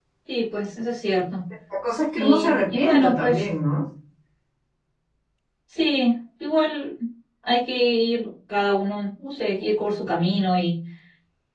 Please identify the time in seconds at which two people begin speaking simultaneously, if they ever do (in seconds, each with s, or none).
2.2 s